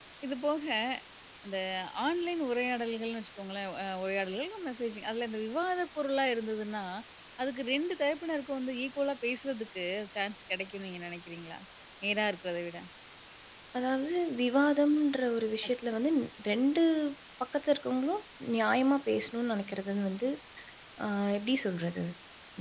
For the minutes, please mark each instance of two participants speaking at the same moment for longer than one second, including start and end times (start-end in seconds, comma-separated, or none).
none